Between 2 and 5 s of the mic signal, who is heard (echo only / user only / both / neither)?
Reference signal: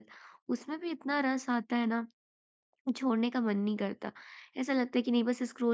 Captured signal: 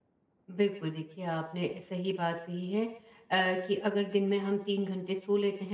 user only